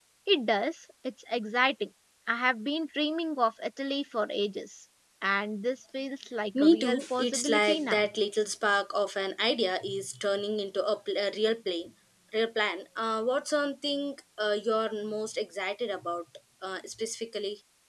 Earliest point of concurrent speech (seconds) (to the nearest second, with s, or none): 6 s